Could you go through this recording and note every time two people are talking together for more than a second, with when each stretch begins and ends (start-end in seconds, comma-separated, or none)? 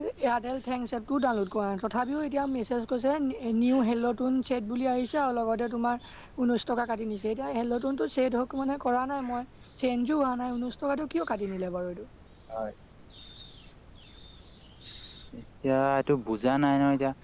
none